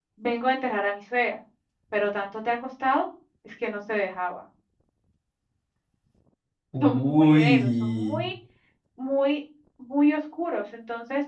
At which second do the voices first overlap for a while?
6.8 s

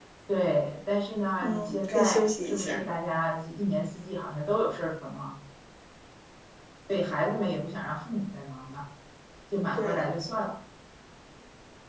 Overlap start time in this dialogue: 1.4 s

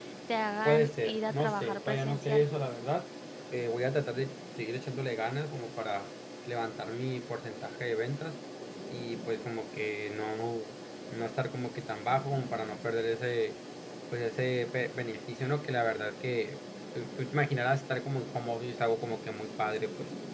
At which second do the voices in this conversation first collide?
0.7 s

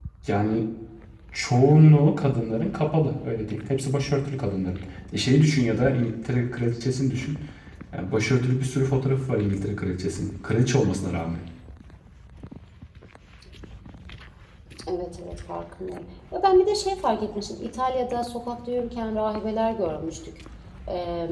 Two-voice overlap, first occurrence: none

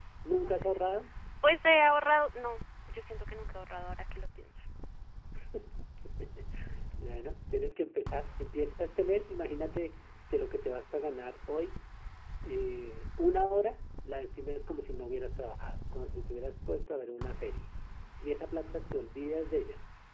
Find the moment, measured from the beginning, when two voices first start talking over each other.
none

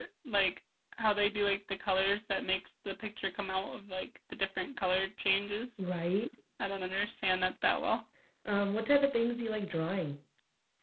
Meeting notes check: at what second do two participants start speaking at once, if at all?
none

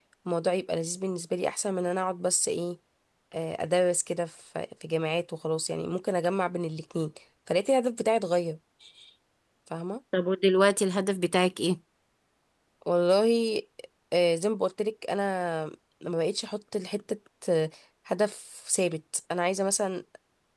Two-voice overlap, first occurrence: none

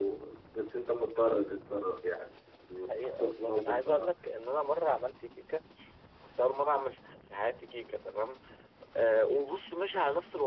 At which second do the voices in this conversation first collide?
2.9 s

